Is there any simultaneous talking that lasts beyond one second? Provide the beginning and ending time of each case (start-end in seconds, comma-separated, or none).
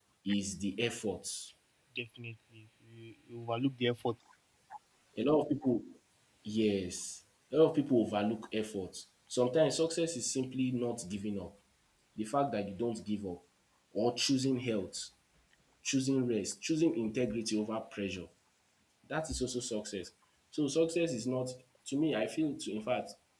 none